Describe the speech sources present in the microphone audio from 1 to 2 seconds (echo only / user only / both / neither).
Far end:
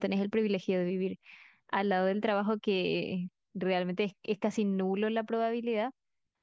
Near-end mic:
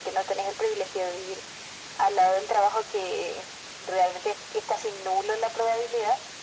echo only